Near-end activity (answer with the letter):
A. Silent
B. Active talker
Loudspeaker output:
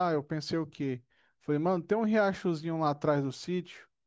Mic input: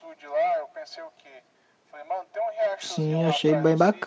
B